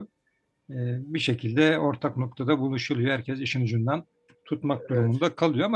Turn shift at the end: No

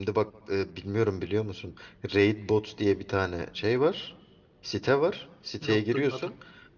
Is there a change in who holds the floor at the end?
No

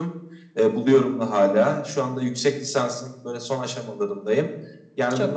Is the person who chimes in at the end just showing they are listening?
Yes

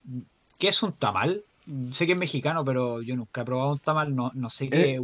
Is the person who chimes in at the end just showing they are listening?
No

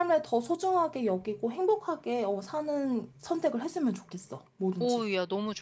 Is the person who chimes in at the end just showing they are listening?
No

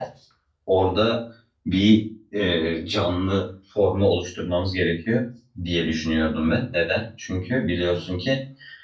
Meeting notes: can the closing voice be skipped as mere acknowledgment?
Yes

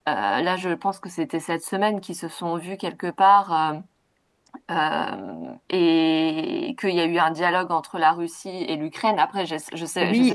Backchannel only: No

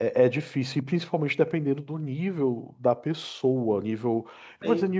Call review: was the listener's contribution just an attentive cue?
Yes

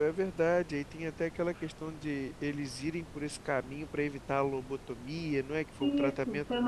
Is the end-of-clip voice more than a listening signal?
Yes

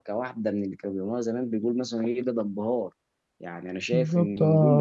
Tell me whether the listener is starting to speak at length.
Yes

